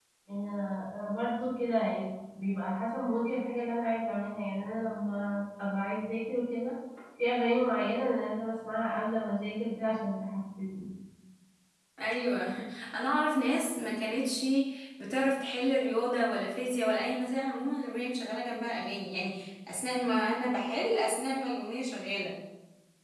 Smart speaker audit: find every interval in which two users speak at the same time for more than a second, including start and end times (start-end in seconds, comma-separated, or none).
none